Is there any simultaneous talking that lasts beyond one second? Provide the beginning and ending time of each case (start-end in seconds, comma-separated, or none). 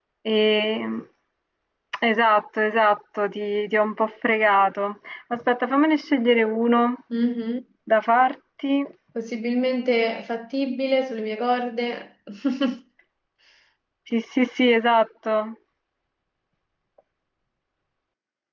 none